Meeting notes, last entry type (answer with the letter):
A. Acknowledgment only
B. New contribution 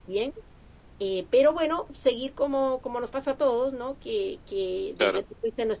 A